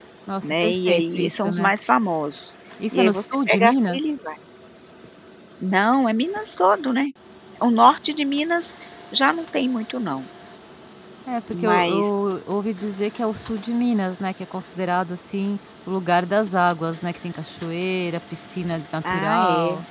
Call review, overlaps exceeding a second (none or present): present